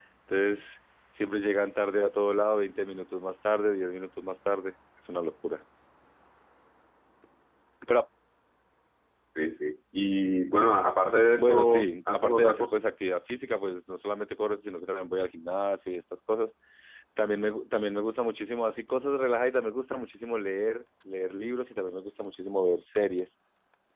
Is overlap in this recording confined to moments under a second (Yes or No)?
No